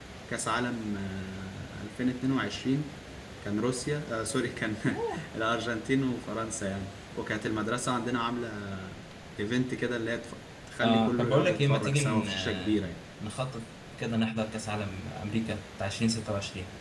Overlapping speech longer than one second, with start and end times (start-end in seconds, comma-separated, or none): 10.8-12.8